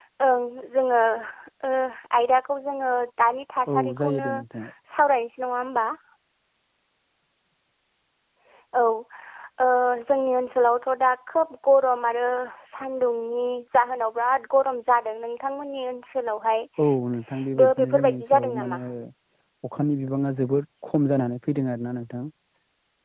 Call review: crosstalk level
present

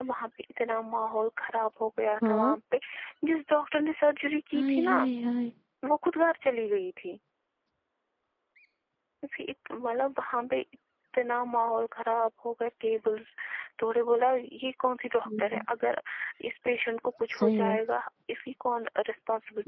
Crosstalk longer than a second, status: none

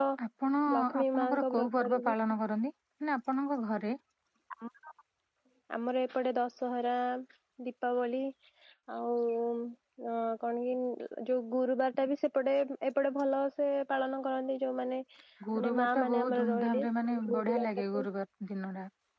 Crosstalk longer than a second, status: present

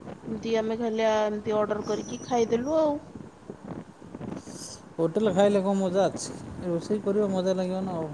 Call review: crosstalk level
none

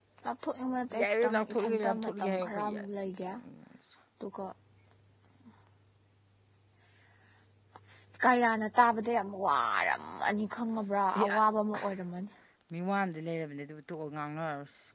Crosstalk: present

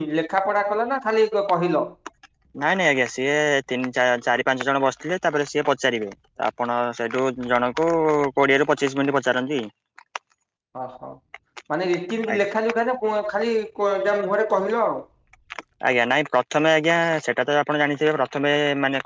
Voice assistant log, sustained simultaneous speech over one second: none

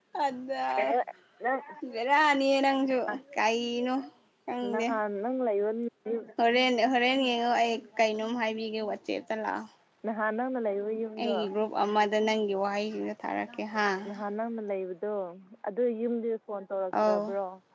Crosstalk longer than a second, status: none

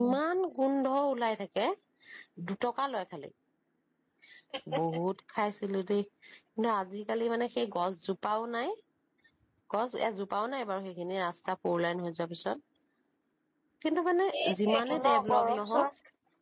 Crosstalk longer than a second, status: present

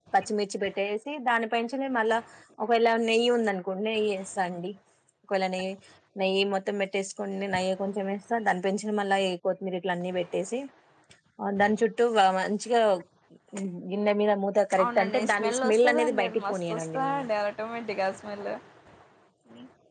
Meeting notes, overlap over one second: present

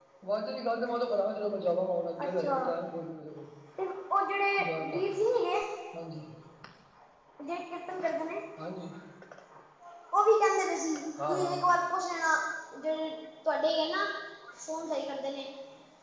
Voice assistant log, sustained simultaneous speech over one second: none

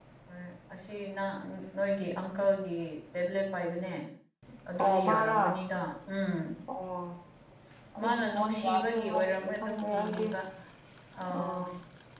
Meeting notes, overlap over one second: present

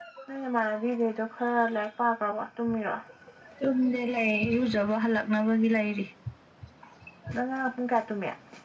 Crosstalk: none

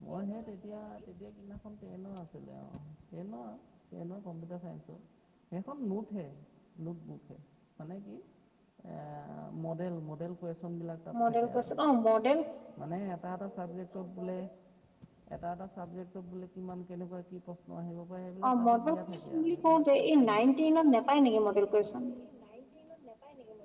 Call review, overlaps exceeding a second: present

